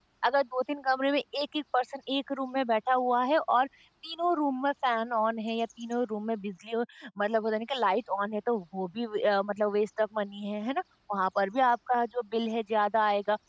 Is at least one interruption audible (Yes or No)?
No